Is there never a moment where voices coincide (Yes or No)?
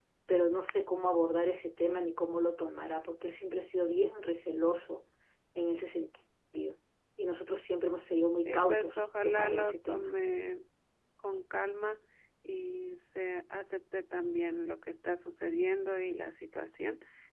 No